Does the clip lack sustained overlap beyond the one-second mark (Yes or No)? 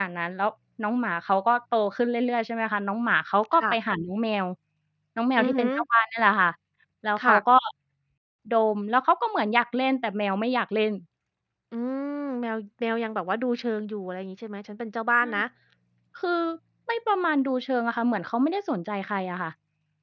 Yes